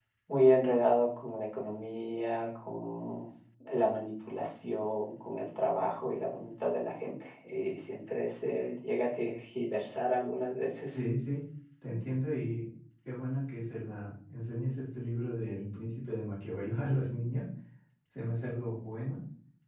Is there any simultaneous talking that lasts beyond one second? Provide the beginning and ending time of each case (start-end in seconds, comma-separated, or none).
none